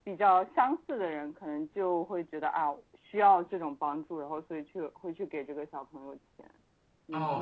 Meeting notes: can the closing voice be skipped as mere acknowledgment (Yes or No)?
No